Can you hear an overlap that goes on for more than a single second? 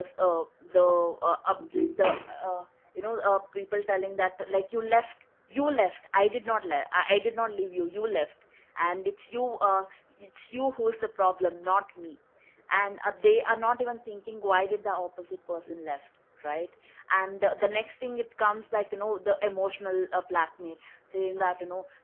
No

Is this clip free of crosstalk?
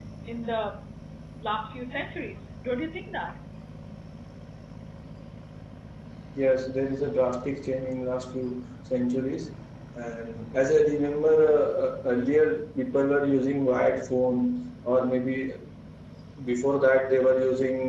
Yes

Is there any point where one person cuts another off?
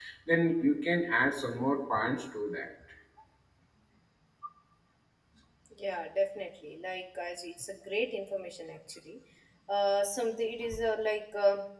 No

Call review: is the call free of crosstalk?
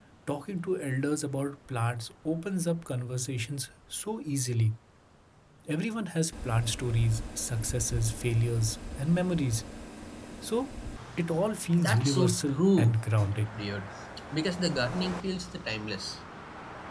No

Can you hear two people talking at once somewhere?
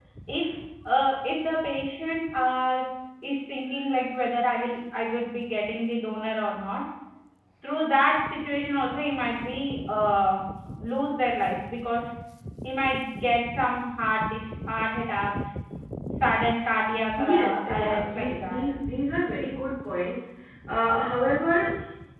Yes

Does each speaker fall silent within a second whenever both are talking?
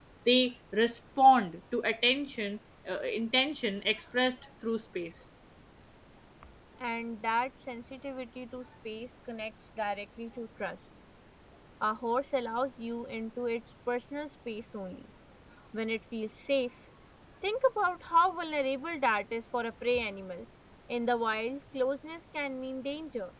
Yes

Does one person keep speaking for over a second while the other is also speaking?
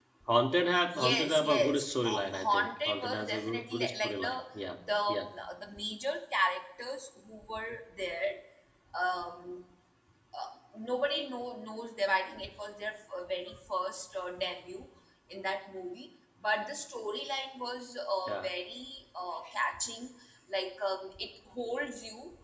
Yes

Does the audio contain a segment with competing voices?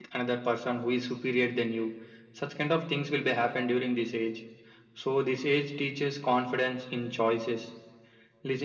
No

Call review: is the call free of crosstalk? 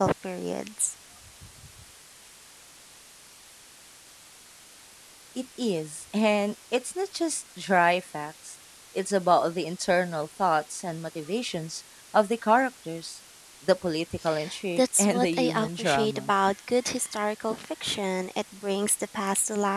No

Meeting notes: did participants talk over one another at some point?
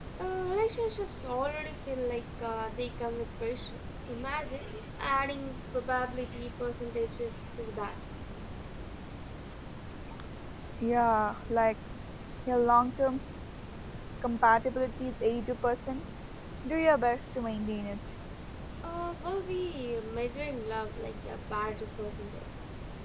No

